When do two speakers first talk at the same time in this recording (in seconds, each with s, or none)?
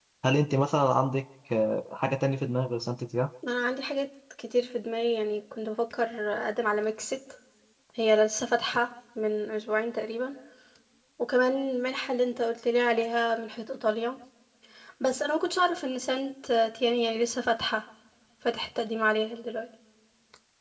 none